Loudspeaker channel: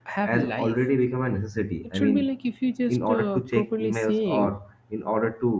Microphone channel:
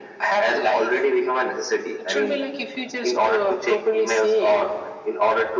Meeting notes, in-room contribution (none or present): none